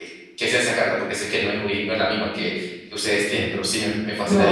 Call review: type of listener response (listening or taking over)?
taking over